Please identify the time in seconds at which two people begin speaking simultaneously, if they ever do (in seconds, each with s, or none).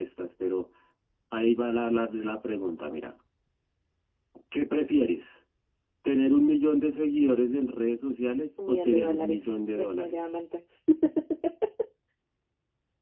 8.6 s